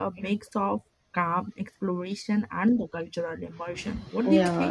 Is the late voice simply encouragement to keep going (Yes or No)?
No